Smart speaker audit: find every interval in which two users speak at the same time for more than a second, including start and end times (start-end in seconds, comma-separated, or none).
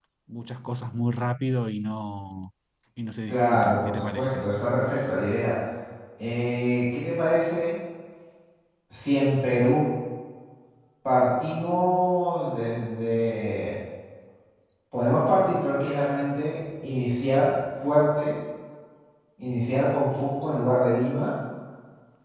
3.3-4.5